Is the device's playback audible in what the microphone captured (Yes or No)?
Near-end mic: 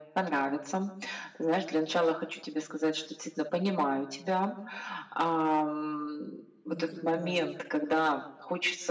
Yes